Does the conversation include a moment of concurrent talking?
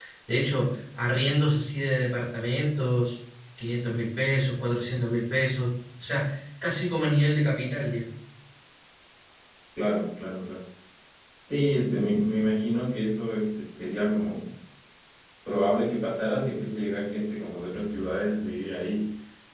No

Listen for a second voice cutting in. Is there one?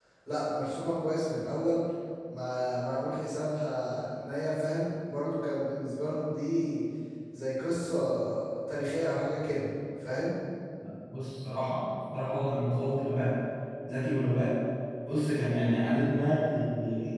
No

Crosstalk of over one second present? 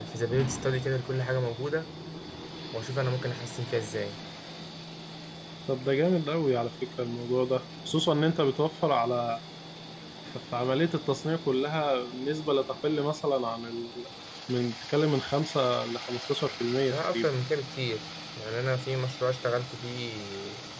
No

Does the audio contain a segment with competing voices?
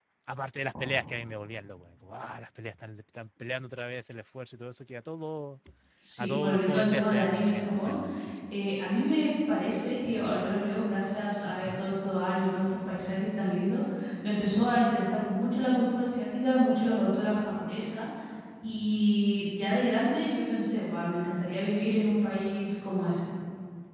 Yes, from 6.2 s

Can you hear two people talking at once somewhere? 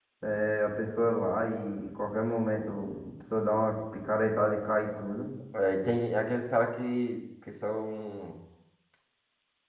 No

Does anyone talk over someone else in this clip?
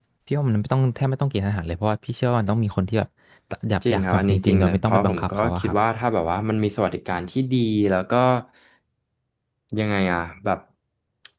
Yes, from 3.9 s

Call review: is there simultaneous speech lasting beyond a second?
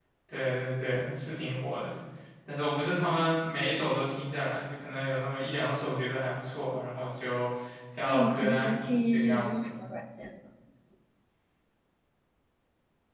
Yes, from 8.1 s

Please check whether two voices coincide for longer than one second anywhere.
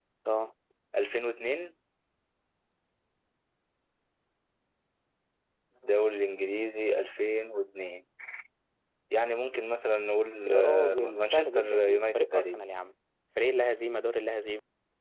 Yes, from 10.4 s

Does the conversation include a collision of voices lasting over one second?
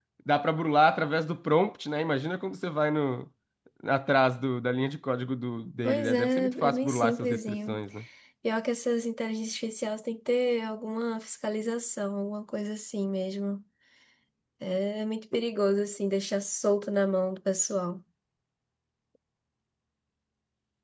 Yes, from 5.8 s

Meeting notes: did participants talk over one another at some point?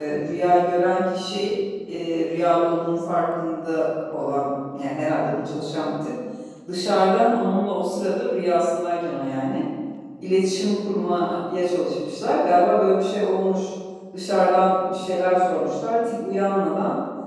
No

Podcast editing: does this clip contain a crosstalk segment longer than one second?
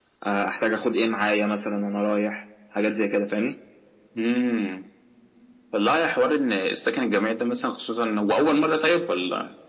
No

